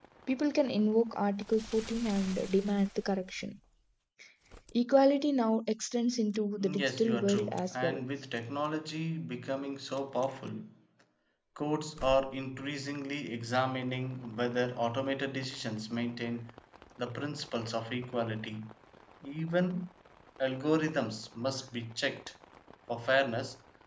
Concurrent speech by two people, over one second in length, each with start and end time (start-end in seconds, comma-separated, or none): 6.6-8.0